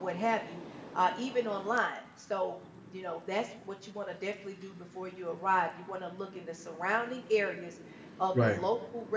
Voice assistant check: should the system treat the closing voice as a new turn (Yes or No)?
No